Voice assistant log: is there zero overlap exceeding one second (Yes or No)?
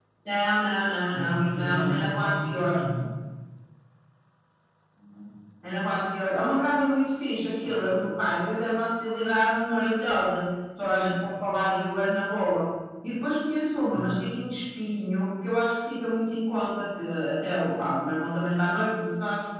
No